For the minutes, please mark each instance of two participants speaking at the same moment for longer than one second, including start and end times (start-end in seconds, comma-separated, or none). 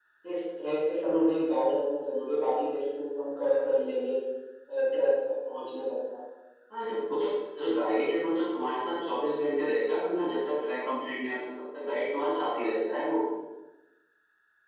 none